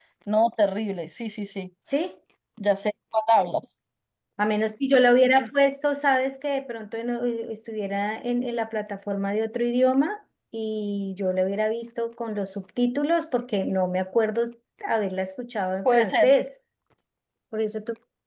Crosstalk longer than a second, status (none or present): none